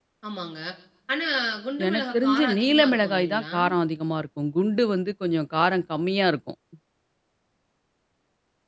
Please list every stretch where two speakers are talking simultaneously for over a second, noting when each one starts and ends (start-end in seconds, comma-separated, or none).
1.9-3.5